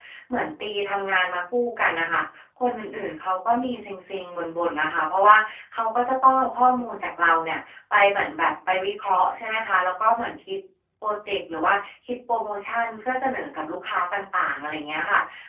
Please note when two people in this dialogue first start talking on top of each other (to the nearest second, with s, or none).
none